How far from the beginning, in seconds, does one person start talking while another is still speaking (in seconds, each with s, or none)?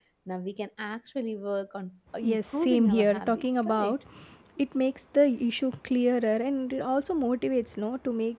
2.2 s